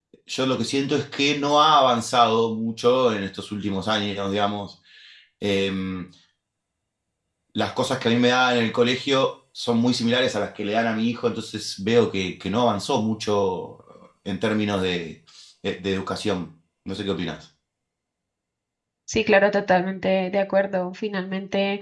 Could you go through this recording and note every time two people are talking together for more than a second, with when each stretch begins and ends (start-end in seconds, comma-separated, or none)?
none